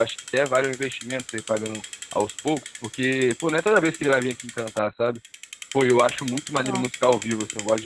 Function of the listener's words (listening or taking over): listening